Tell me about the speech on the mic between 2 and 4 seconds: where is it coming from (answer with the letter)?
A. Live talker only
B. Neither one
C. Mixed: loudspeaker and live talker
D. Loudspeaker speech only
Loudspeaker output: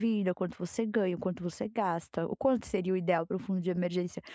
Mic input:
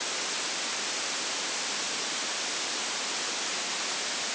B